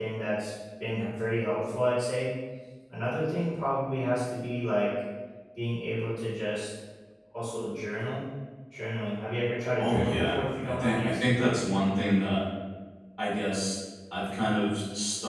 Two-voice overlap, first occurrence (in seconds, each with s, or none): 9.8 s